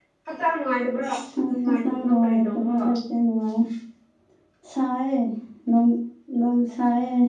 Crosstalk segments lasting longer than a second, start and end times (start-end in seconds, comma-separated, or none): 1.6-2.9